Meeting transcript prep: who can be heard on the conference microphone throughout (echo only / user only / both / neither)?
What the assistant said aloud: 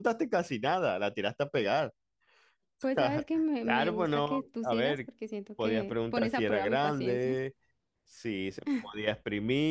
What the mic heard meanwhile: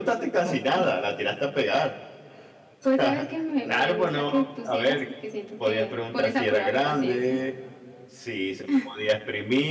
both